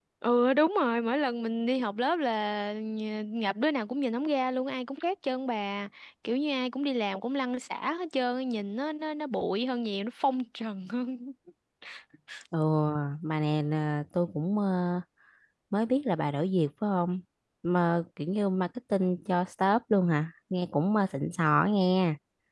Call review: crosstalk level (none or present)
none